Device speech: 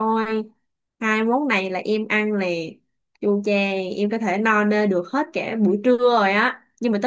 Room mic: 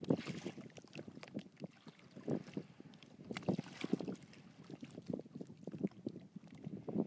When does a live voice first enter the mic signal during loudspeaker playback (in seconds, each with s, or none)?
none